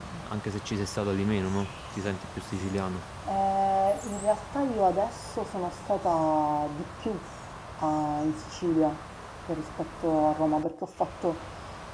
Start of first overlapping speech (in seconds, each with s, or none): none